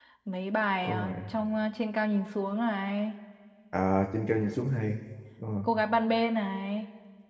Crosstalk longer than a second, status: none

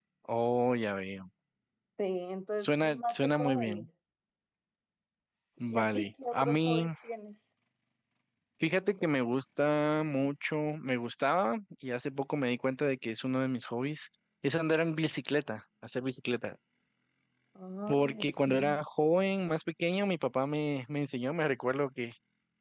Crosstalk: present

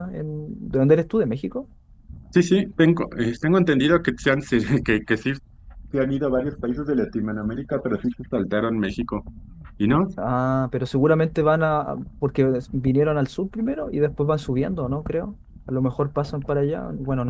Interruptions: none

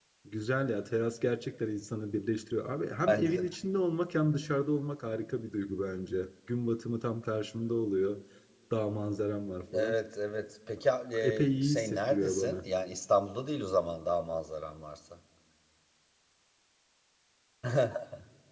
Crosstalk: present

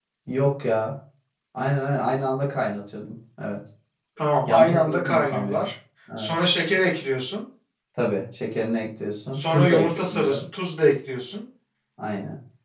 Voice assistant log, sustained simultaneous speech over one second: present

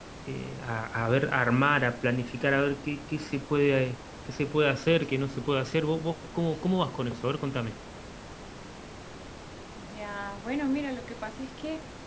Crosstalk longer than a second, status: none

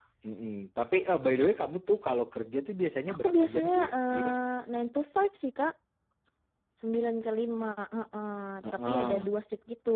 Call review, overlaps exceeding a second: present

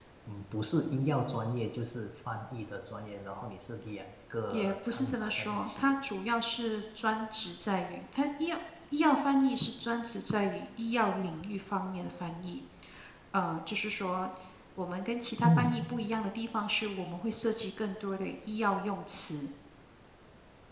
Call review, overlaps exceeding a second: present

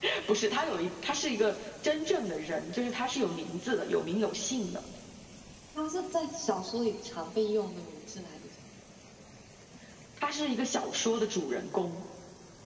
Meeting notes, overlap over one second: none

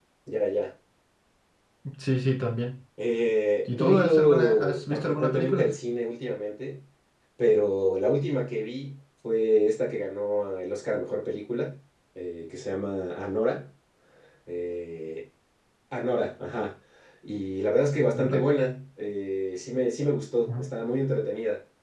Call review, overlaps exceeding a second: present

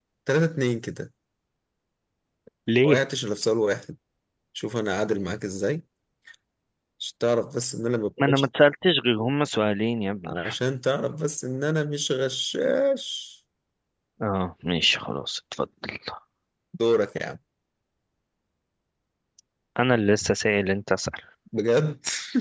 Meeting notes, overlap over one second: none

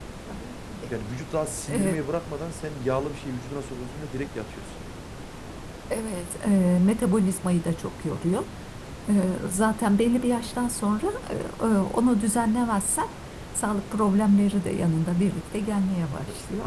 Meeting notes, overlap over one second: none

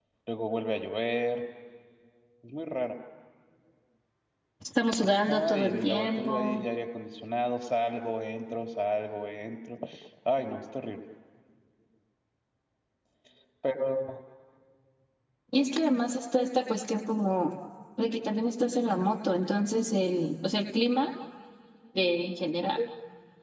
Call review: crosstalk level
present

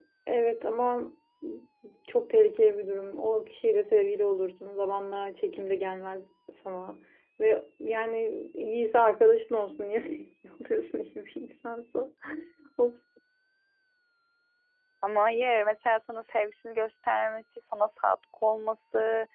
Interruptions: none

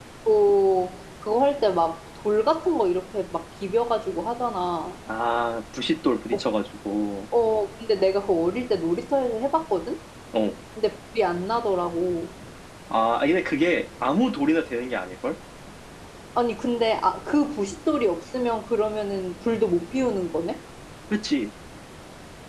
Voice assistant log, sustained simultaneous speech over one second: none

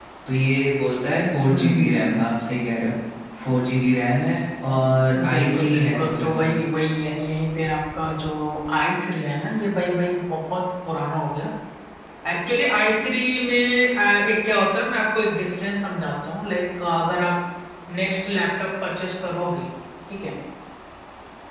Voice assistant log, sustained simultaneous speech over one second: present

